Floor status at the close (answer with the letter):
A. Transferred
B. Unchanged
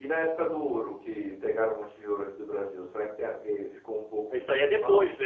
A